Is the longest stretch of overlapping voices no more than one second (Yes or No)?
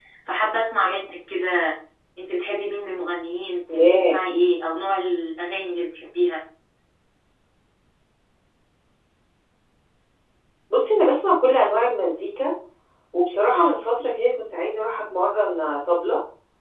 Yes